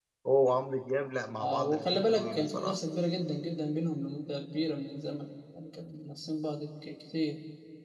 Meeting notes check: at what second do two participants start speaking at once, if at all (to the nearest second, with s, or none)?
1 s